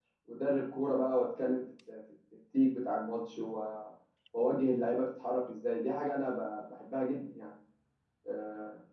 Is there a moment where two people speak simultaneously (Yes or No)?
No